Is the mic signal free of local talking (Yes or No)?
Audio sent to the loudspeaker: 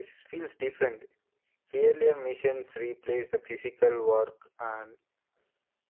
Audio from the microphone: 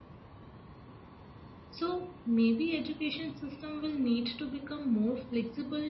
No